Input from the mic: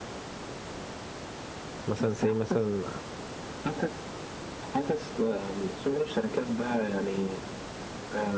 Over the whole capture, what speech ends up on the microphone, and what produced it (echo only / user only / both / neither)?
both